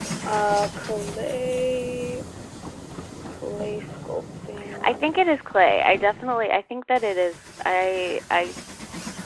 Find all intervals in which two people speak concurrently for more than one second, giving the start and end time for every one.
none

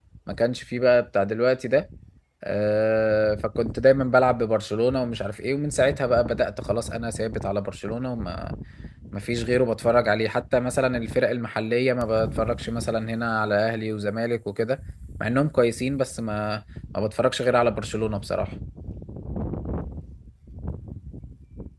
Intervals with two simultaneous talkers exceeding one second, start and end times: none

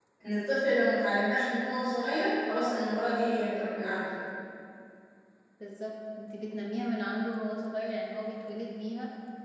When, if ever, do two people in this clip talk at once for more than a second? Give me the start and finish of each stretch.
none

